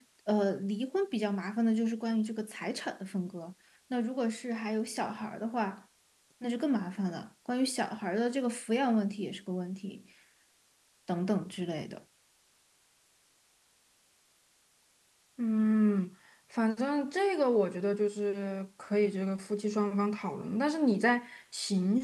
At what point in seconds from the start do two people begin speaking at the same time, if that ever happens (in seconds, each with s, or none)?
none